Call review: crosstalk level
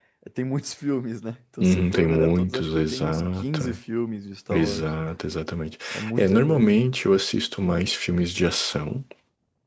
present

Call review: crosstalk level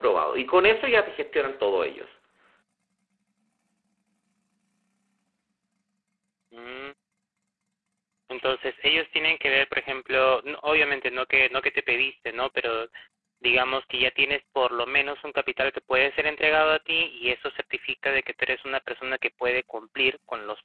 none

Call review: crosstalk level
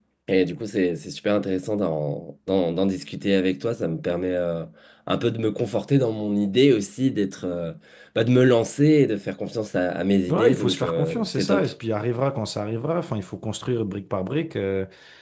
present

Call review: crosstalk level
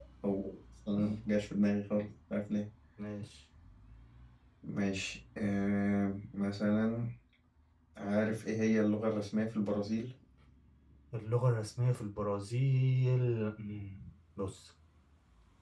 none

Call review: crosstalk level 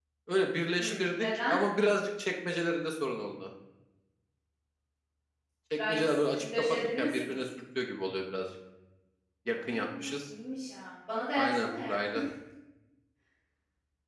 present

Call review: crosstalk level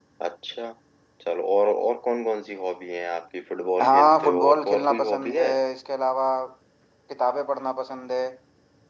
present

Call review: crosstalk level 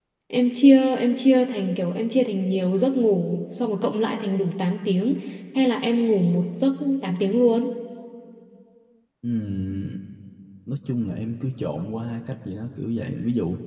none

